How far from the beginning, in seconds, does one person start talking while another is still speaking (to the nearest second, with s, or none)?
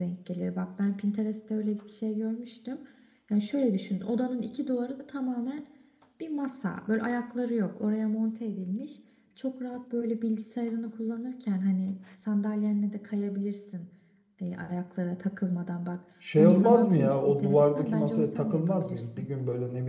16 s